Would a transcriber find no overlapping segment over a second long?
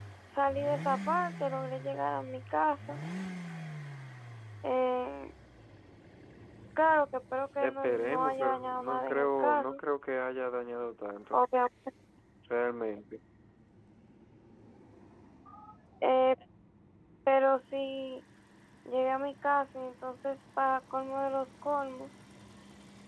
No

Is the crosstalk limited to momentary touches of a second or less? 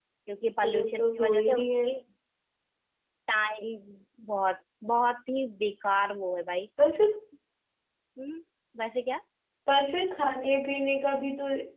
No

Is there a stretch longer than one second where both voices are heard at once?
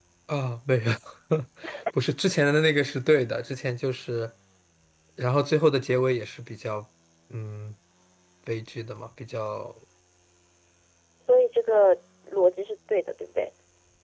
No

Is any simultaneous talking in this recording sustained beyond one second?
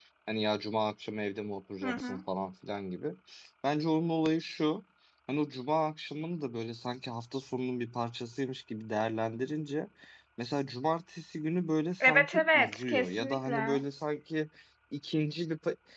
Yes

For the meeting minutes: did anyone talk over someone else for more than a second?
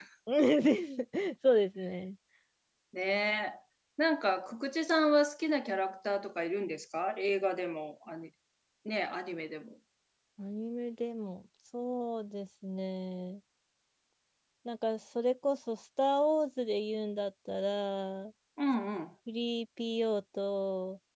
No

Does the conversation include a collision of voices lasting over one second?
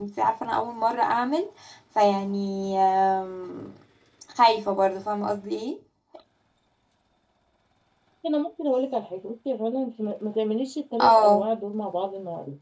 No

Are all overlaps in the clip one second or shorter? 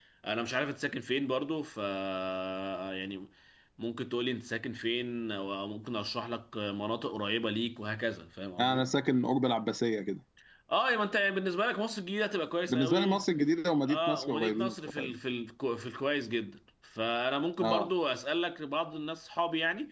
No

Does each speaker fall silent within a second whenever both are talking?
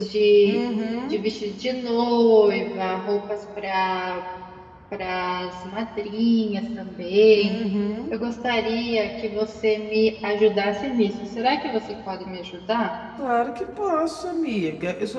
Yes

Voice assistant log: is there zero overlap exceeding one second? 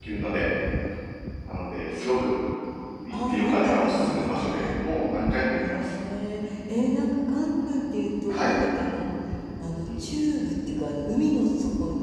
No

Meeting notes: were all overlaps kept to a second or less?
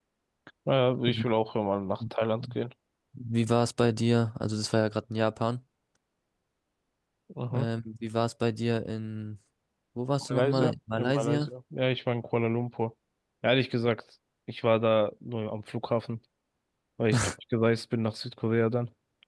No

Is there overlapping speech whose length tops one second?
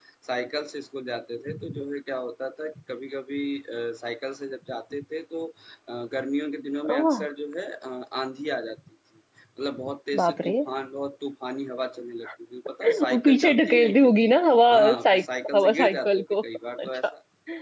Yes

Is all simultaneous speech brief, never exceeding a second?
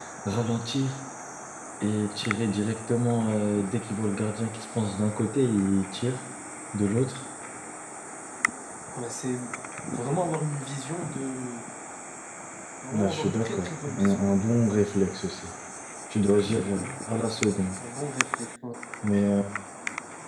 No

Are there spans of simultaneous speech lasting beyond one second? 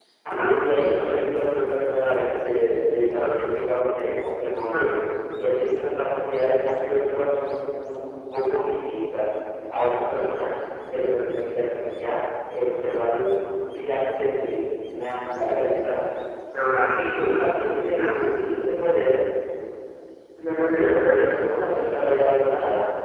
Yes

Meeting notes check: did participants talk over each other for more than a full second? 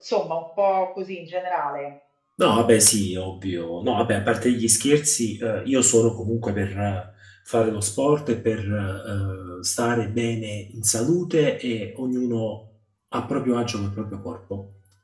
No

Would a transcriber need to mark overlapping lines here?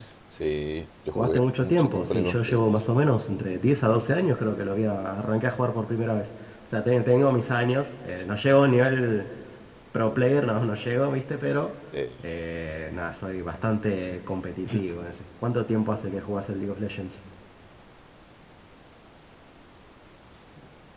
Yes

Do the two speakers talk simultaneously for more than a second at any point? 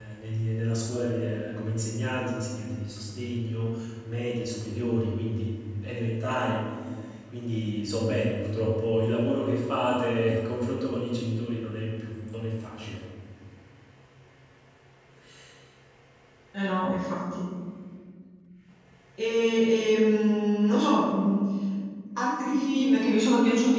No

